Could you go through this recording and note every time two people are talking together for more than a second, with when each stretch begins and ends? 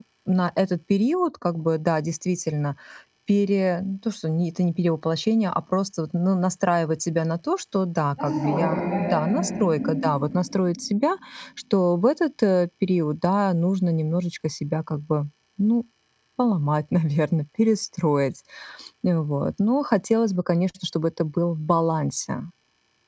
8.2-9.9

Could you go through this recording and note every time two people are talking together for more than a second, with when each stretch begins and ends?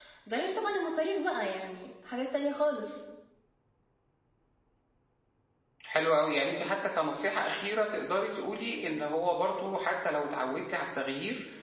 none

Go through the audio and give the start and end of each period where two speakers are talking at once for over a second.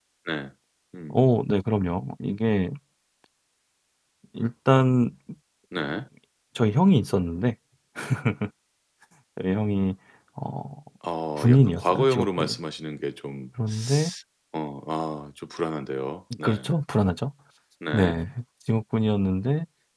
11.4-12.6

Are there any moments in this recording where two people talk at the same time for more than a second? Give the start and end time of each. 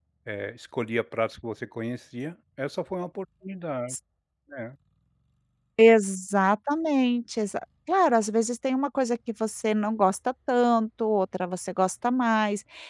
none

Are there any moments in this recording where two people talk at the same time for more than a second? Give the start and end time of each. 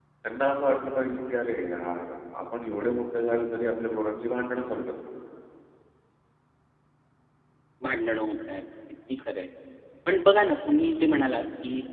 none

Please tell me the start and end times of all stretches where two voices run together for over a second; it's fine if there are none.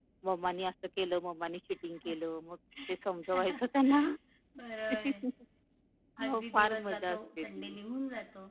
6.2-7.8

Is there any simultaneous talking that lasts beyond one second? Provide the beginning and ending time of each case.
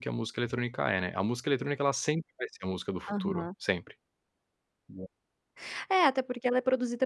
none

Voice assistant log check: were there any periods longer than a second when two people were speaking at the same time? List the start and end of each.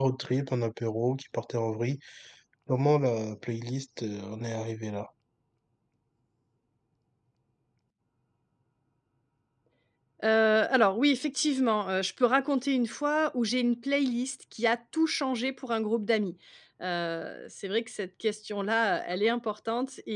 none

